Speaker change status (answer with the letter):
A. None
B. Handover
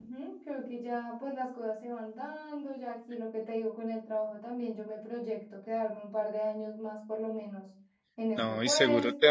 B